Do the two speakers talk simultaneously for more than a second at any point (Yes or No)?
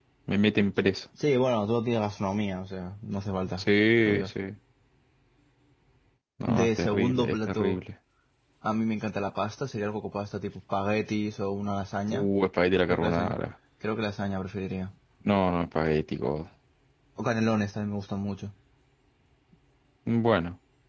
Yes